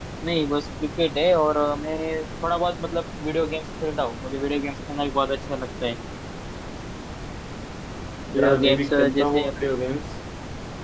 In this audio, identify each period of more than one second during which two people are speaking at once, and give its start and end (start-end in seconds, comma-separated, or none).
8.3-9.7